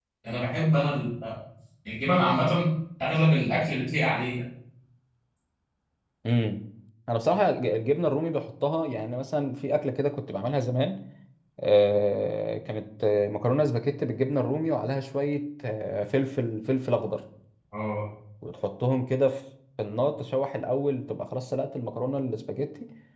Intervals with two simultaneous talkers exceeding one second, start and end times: none

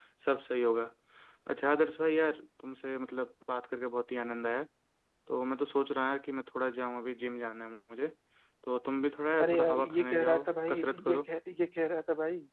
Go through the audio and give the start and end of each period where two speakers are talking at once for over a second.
9.4-11.3

